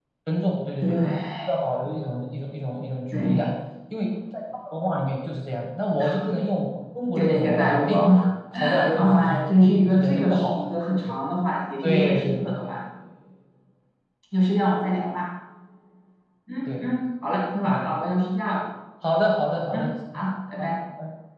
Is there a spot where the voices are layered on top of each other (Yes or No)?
Yes